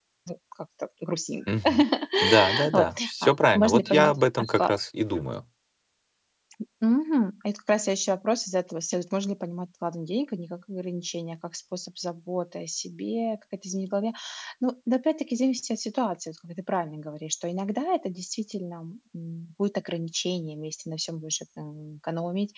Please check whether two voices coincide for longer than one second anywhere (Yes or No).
Yes